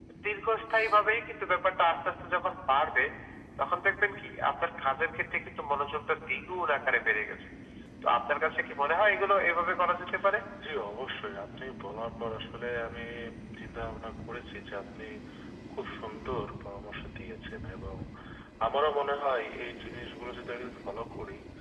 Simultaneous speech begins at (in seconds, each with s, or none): none